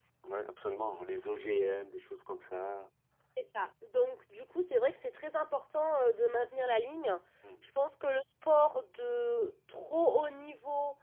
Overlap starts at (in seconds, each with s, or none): none